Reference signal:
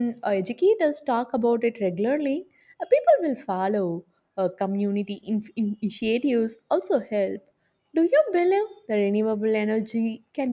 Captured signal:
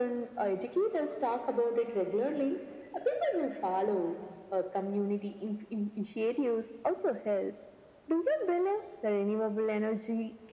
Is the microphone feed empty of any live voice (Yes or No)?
Yes